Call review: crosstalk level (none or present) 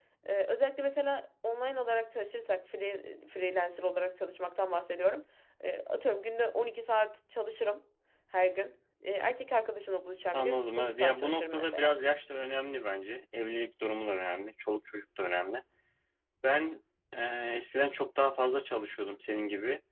present